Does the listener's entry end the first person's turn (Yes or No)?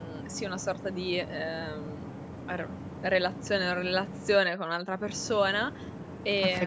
Yes